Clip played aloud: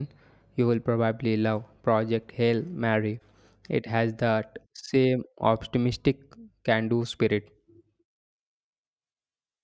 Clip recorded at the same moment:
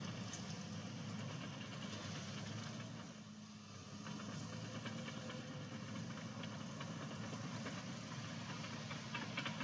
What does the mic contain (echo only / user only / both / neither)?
neither